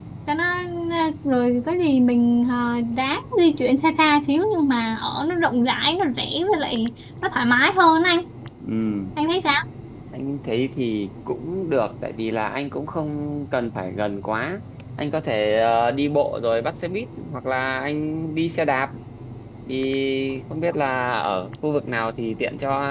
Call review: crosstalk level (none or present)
none